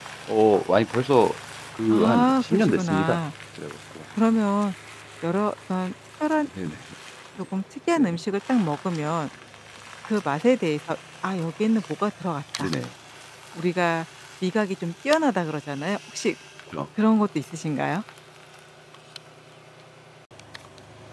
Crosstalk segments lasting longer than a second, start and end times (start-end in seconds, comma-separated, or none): 1.9-3.2